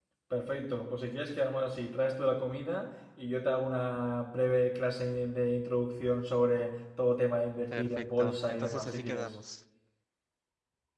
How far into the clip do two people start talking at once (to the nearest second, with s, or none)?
8 s